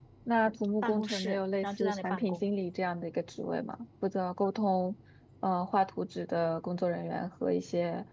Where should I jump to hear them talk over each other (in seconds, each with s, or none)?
0.8 s